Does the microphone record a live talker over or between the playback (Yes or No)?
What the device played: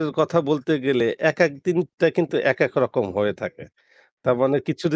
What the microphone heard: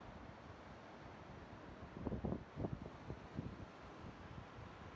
No